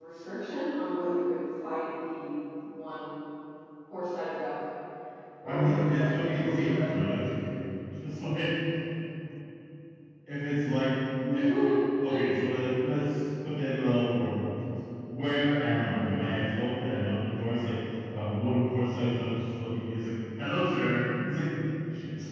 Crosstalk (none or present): present